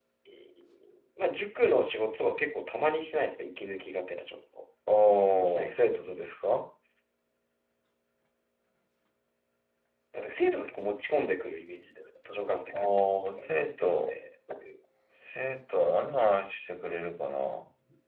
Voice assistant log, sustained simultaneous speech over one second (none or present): present